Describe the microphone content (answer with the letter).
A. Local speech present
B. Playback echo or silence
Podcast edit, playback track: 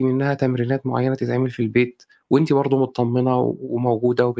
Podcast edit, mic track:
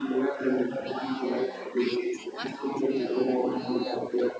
A